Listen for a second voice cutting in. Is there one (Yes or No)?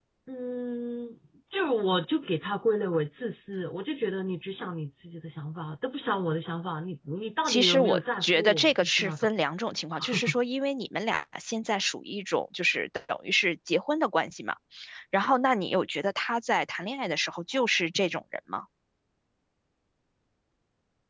Yes